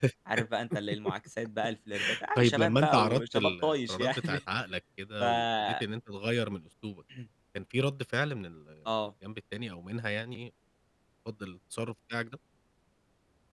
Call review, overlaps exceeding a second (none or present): present